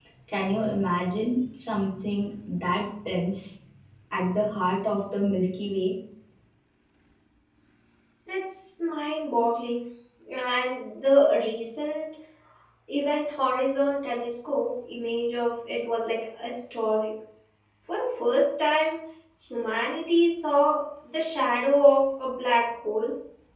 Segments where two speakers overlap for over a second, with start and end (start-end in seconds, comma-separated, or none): none